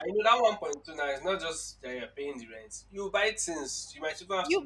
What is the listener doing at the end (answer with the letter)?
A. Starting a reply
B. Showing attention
A